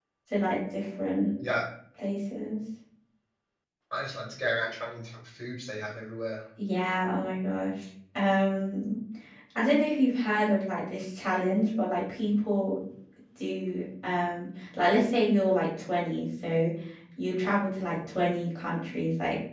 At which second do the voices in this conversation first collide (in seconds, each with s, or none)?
none